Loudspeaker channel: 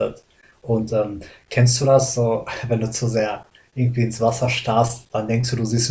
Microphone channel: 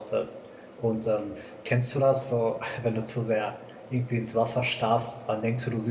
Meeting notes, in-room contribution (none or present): none